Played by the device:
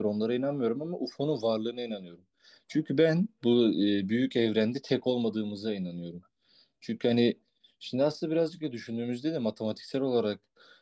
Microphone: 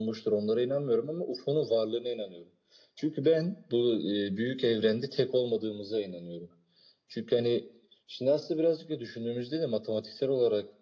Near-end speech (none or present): none